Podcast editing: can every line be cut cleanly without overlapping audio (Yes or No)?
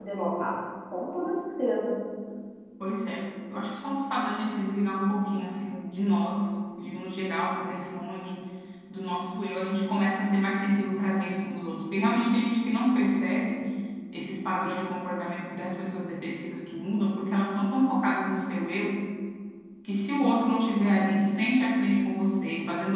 Yes